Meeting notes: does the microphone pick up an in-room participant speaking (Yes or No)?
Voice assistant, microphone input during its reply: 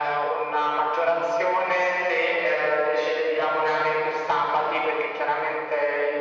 No